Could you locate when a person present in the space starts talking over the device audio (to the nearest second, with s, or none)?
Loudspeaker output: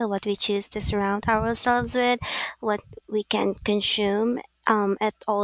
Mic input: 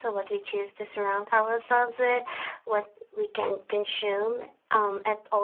none